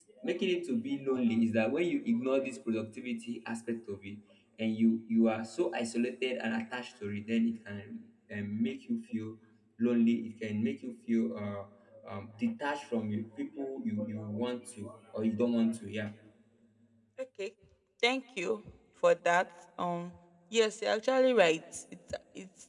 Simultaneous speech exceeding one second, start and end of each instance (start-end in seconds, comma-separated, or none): none